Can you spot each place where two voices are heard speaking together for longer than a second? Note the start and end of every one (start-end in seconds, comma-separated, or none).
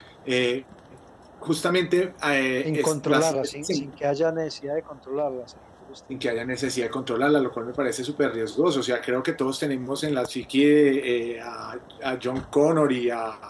2.6-3.9